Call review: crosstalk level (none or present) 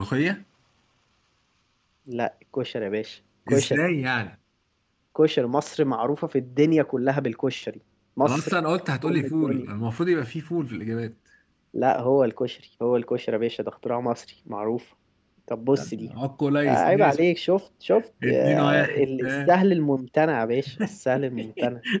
present